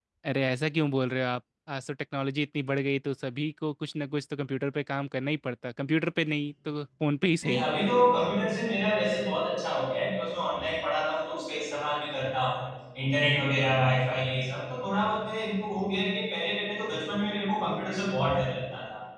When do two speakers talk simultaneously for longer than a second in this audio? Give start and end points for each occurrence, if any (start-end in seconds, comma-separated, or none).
none